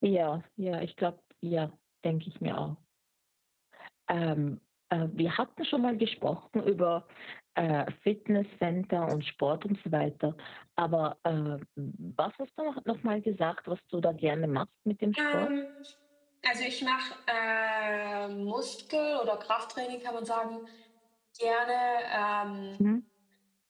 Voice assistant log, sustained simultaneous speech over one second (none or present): none